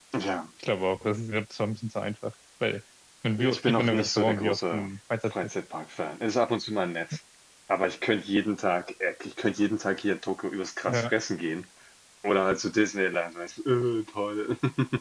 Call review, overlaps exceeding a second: present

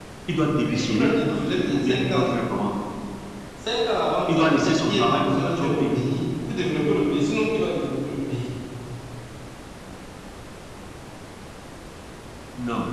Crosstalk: present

